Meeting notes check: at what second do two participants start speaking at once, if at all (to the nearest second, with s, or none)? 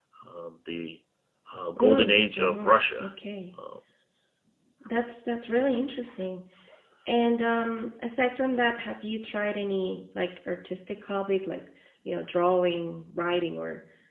2 s